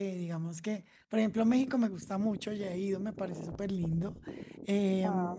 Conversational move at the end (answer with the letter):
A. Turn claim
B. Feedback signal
B